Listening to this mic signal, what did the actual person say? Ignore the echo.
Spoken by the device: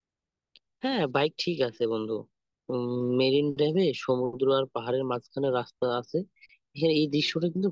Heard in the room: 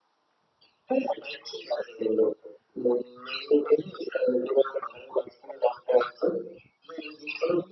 none

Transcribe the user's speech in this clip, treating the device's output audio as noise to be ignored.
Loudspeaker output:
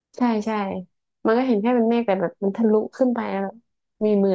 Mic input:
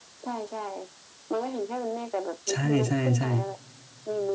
ใช่ใช่ใช่

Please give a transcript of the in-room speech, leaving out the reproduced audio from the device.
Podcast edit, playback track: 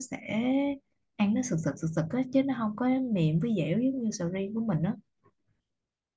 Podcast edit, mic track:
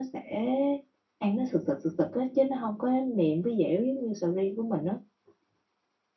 none

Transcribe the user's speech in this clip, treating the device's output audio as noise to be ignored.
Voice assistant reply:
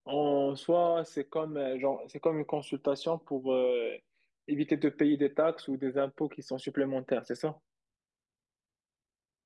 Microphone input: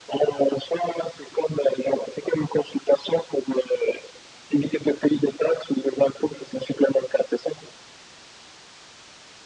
none

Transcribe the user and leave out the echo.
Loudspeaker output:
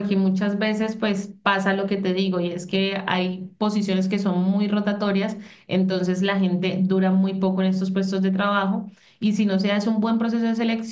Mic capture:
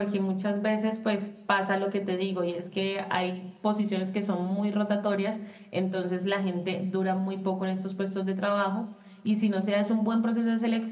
none

